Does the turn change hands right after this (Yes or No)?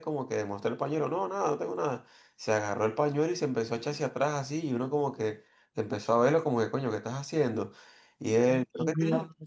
No